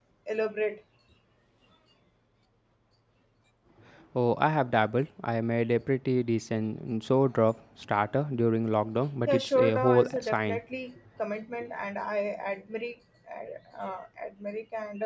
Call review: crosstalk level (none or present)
present